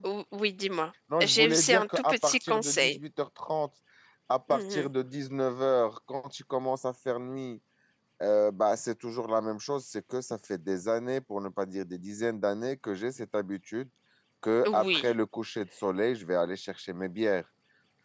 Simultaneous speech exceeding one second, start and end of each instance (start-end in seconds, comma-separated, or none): 1.2-3.0